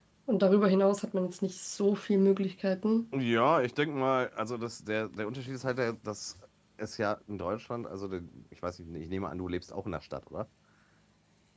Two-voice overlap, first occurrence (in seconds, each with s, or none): none